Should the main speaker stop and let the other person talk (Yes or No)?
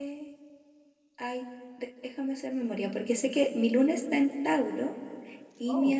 No